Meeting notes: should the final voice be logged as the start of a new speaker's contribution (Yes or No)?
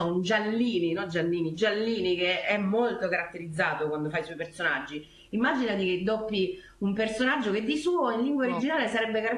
No